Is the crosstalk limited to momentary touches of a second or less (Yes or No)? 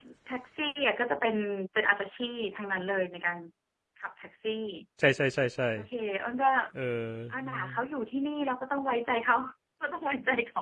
Yes